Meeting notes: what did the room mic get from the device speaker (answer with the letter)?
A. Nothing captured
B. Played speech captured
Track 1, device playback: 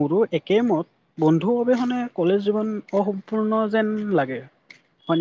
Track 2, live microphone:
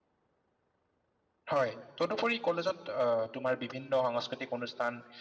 A